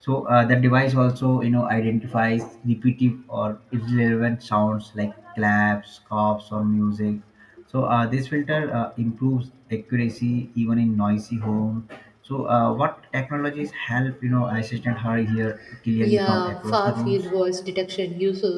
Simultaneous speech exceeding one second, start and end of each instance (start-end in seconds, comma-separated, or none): 16.0-17.2